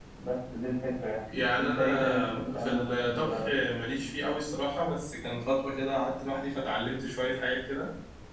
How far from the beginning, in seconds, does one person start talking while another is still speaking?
1.3 s

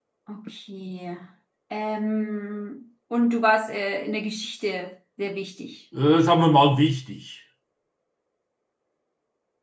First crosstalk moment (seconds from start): none

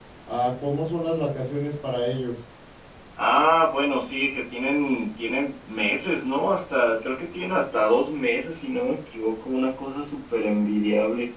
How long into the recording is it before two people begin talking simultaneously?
none

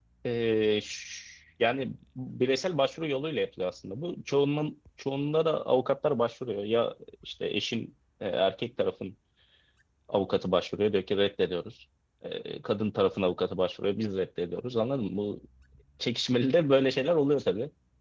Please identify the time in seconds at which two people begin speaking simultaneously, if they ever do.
none

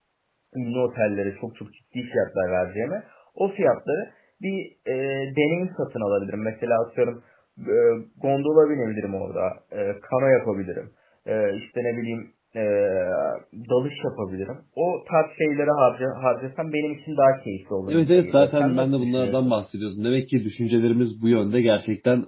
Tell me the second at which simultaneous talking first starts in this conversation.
17.9 s

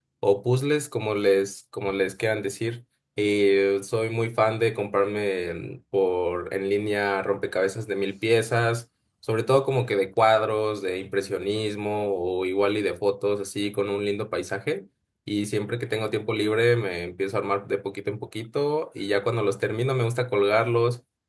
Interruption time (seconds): none

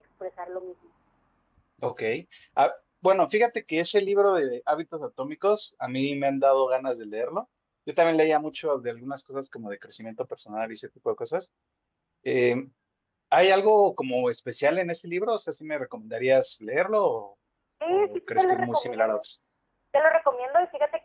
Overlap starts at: 17.9 s

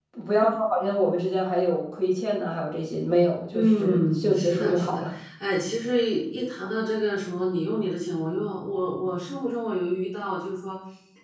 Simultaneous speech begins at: 3.5 s

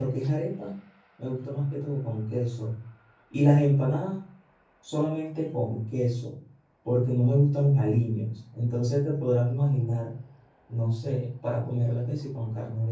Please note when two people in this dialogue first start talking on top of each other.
none

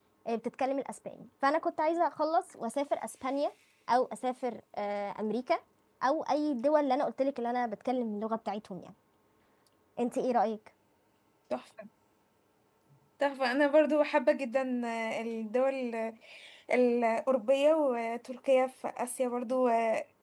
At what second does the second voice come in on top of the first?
none

